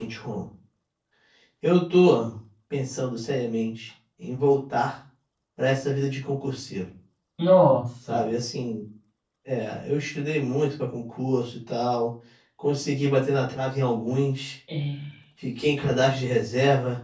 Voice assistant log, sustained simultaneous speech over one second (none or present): none